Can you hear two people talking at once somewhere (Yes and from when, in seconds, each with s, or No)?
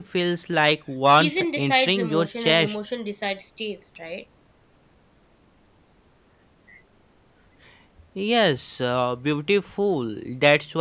Yes, from 1.1 s